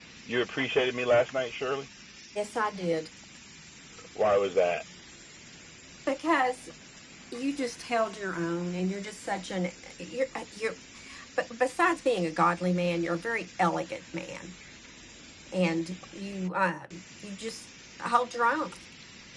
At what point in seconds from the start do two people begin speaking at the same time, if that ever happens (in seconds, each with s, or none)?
none